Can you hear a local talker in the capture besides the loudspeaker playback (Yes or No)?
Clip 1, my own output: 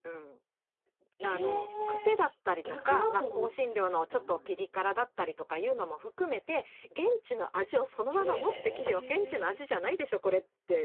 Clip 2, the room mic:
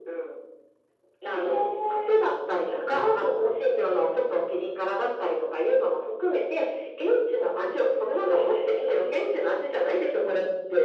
No